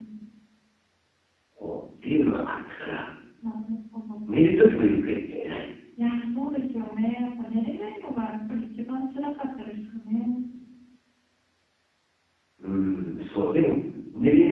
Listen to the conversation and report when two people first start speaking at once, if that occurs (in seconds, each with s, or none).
none